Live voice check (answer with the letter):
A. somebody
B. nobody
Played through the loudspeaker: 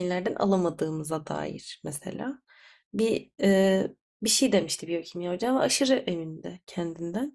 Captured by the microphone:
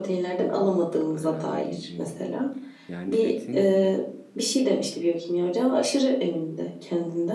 A